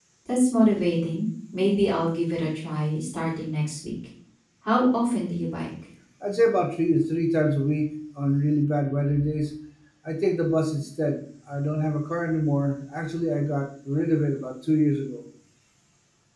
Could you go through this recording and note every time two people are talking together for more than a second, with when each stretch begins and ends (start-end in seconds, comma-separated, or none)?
none